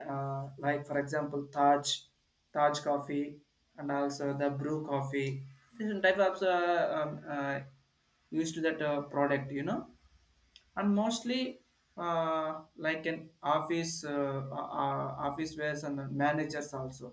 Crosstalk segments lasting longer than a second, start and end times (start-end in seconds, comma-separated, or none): none